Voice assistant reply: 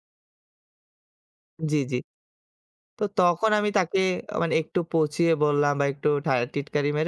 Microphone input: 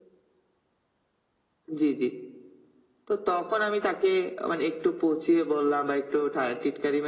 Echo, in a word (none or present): present